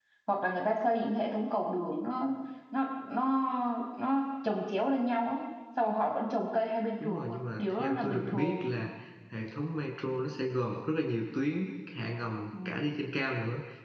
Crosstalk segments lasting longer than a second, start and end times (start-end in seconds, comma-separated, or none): 7.0-8.6